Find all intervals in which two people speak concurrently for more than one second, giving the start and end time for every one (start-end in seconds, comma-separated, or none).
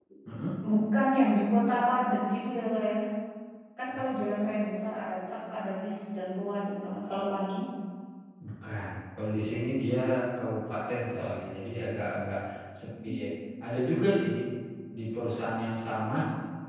none